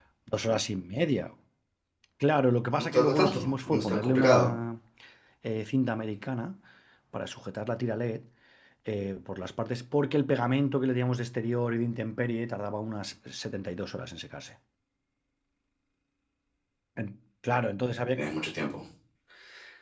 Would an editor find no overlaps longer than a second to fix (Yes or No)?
No